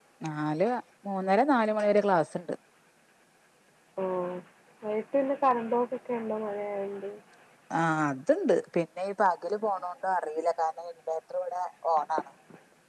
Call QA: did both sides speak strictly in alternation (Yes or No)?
Yes